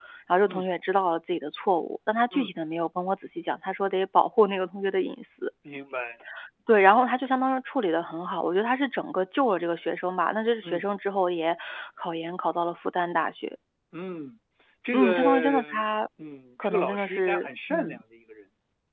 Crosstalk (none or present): present